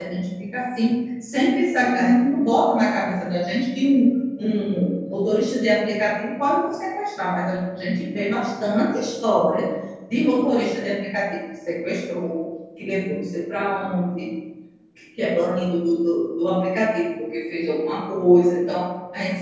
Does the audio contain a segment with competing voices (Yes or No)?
No